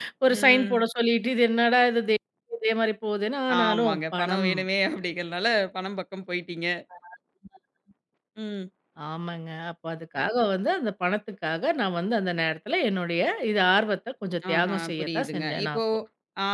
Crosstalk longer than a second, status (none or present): present